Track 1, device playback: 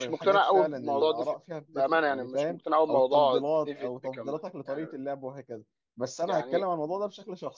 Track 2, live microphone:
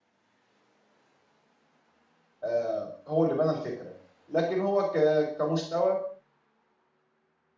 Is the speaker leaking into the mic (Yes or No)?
No